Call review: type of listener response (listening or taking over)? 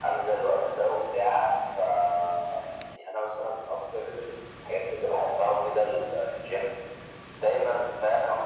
listening